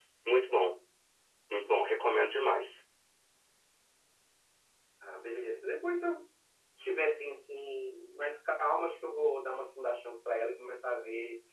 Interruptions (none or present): none